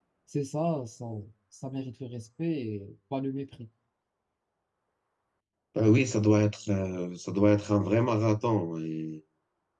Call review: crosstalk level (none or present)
none